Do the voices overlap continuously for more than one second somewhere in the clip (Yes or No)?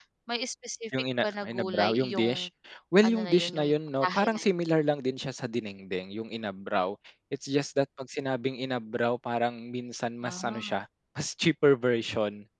Yes